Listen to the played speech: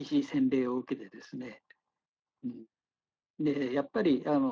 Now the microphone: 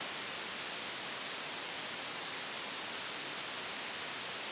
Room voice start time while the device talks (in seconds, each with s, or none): none